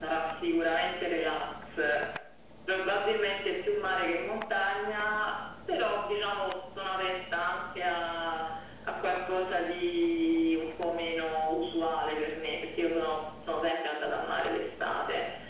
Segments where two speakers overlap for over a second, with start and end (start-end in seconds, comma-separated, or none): none